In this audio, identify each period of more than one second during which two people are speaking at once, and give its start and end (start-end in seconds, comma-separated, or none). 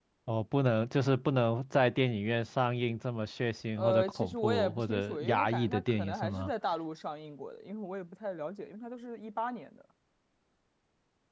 3.8-6.5